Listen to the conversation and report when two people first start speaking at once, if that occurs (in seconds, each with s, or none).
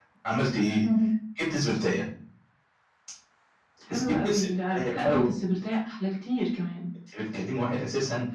4.1 s